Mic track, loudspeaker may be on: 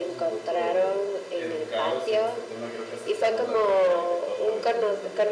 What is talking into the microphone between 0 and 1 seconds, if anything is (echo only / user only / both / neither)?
both